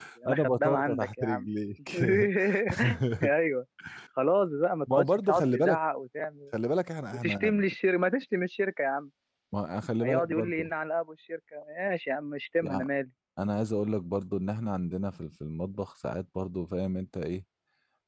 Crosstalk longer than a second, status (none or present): present